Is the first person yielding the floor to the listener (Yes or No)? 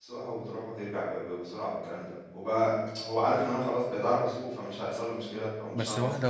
Yes